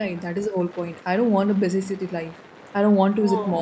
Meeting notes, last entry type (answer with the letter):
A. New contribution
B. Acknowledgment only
B